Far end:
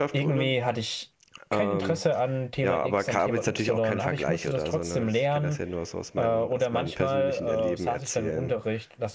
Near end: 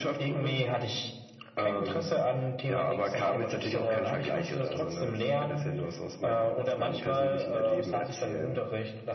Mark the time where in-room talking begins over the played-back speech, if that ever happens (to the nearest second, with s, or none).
none